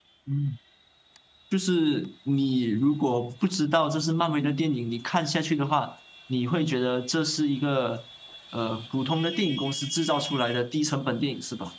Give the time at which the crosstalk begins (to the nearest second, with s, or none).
none